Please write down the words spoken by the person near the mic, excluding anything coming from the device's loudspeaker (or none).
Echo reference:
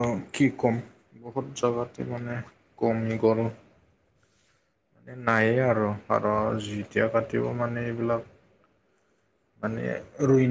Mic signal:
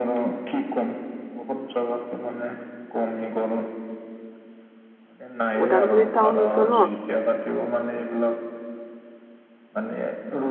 ওদালগুৰি টাউনতো ন